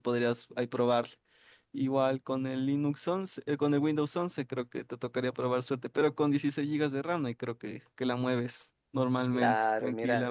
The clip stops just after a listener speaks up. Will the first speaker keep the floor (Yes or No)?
No